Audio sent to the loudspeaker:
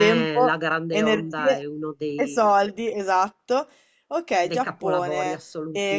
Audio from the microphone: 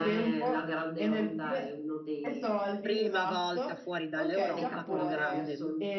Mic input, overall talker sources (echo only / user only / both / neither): both